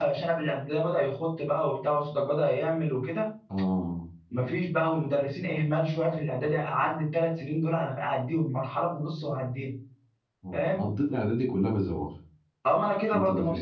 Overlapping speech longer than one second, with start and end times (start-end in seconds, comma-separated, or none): none